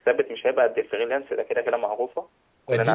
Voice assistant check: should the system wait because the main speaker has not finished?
No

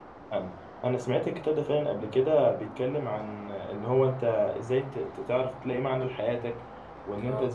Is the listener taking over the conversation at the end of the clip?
No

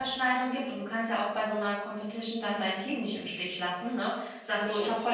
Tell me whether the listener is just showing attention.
Yes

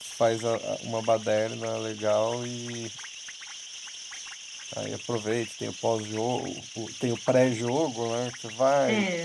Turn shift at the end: Yes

